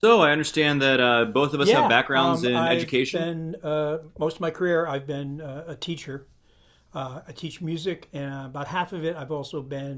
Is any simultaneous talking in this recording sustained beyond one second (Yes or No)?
Yes